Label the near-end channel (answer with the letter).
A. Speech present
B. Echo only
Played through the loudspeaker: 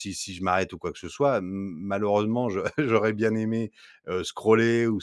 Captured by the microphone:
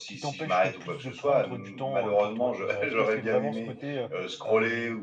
A